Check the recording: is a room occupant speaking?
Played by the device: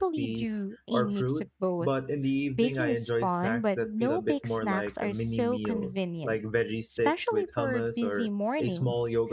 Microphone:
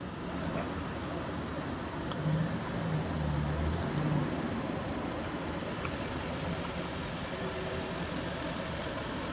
No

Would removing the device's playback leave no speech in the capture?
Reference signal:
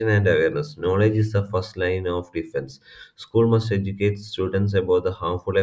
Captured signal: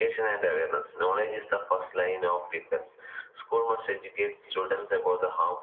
Yes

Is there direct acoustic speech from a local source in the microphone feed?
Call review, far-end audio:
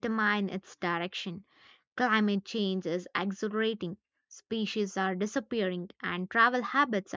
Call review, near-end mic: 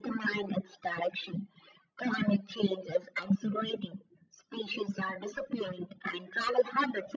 No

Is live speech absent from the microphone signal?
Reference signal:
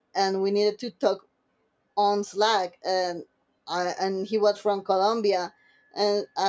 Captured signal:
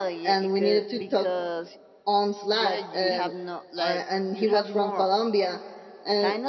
No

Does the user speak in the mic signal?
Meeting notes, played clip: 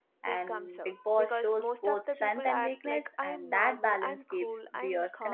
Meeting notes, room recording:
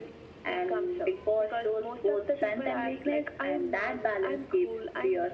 No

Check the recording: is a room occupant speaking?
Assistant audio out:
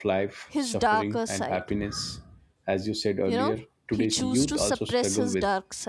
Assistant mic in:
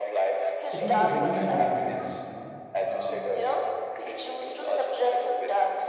Yes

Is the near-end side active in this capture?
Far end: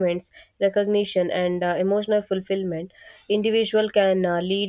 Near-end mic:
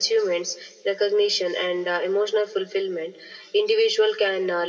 No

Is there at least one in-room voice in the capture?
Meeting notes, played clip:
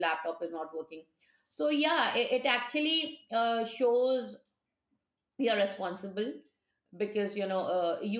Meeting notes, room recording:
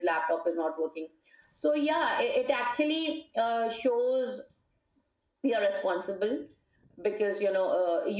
No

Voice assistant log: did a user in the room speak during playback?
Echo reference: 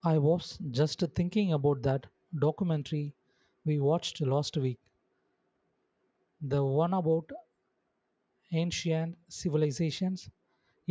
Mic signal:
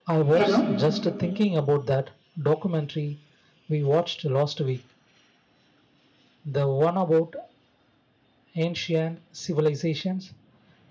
Yes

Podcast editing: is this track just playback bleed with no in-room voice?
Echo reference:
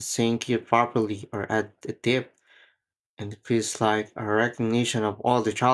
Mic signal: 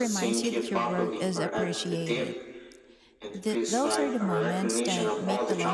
No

